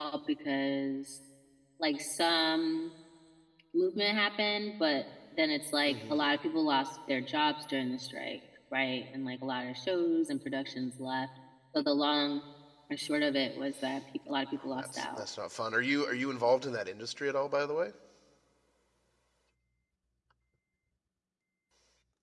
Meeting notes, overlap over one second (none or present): none